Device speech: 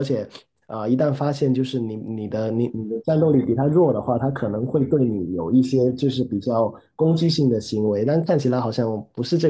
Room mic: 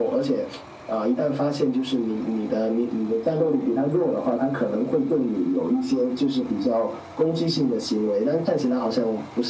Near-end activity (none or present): none